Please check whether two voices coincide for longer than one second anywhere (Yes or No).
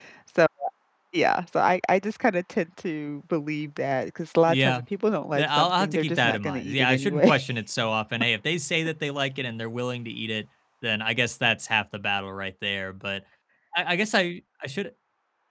Yes